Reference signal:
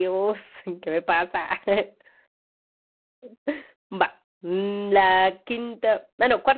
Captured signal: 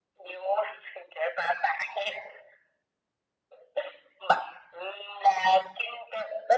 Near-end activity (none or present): none